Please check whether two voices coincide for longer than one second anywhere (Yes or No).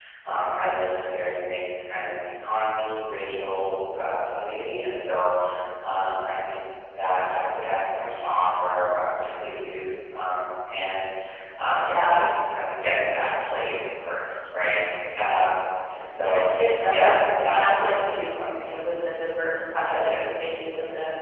Yes